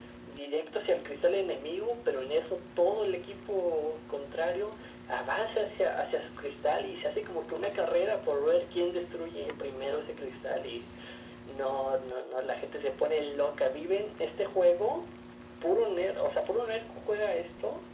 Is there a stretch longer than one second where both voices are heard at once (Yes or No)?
No